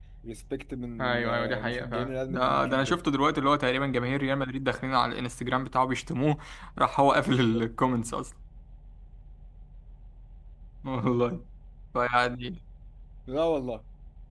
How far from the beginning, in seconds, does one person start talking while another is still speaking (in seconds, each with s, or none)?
1.0 s